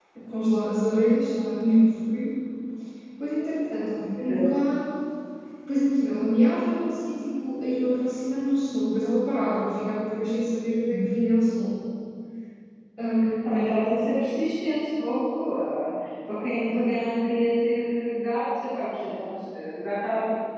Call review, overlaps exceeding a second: none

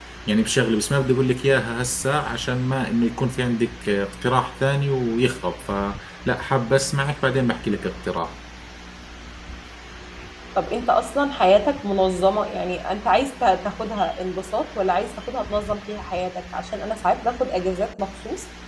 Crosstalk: none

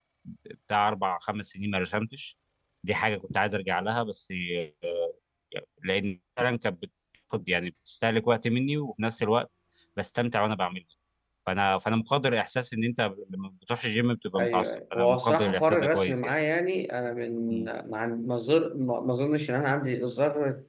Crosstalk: present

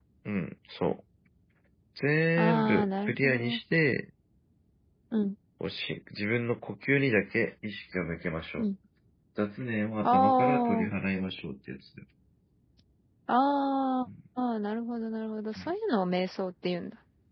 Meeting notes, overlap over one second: present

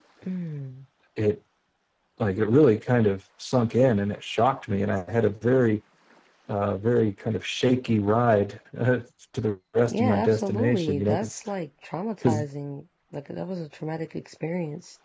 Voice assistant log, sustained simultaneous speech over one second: present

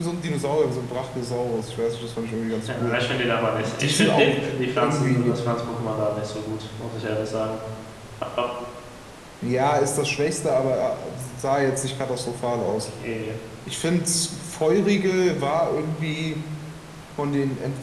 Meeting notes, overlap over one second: present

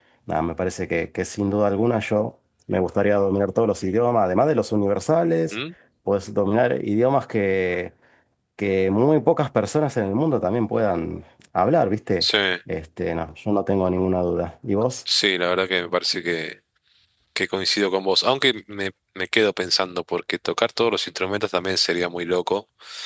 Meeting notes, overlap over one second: none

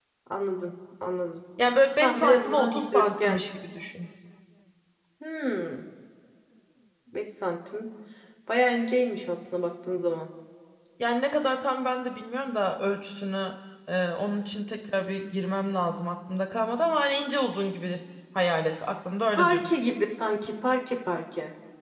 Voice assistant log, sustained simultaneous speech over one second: present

